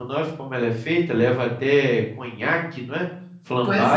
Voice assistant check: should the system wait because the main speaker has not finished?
No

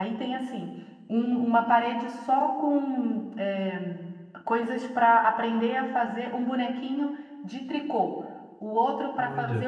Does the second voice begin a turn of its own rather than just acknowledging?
No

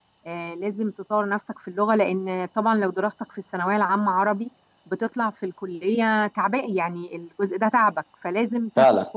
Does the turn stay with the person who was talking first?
Yes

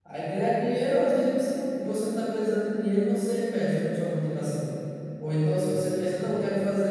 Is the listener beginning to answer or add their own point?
No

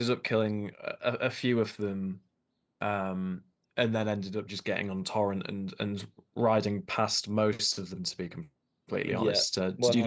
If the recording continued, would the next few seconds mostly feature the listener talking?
Yes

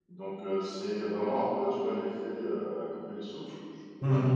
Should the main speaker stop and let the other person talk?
No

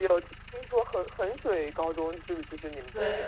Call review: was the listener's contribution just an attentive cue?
No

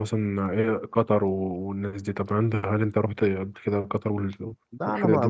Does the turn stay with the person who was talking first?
No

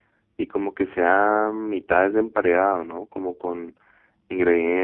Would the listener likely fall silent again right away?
Yes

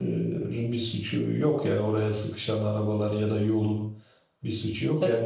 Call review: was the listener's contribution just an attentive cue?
Yes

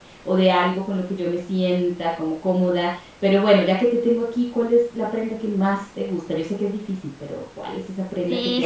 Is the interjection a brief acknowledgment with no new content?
No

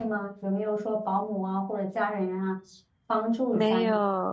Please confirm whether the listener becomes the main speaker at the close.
Yes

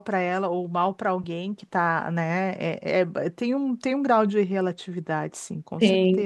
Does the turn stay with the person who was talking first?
No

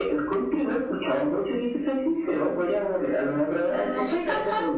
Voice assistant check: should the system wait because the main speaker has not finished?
No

